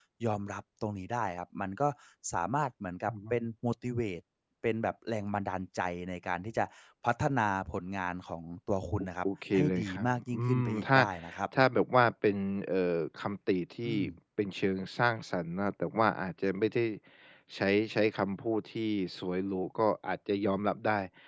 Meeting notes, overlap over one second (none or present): present